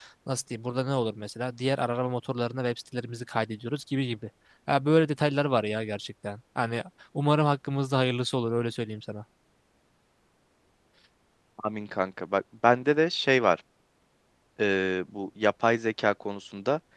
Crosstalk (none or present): none